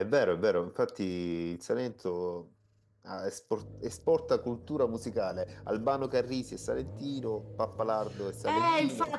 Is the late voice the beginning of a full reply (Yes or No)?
Yes